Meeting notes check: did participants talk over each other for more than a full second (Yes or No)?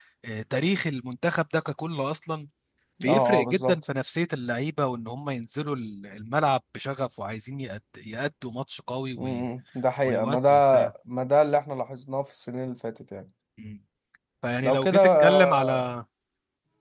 Yes